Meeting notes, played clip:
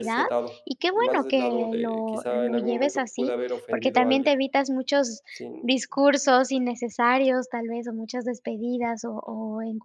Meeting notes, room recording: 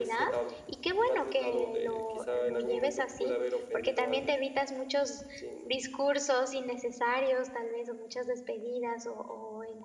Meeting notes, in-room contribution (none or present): none